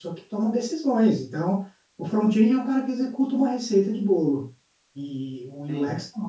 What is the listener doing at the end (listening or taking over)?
listening